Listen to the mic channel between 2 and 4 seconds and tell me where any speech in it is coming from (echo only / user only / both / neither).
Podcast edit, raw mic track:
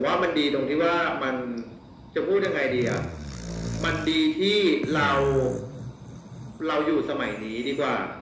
echo only